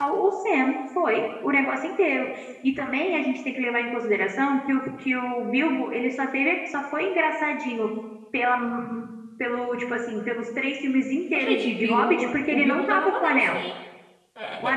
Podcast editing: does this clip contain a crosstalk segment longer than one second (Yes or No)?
Yes